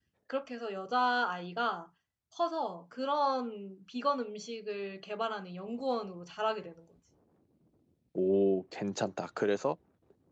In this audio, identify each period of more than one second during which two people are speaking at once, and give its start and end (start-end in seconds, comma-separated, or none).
none